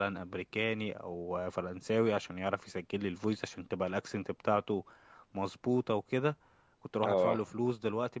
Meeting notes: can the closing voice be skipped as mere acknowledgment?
Yes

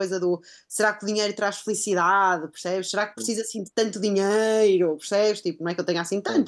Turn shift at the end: No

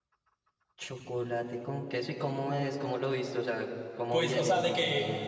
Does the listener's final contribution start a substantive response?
Yes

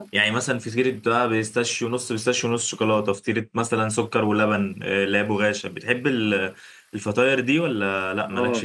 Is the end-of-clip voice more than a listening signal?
Yes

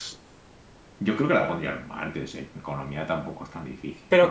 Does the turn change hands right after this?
Yes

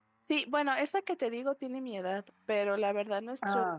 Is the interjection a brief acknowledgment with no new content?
Yes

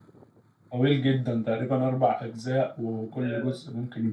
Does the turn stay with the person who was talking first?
Yes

